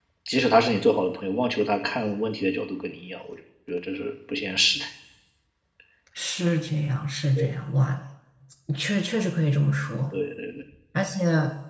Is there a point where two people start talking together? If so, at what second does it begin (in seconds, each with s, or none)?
none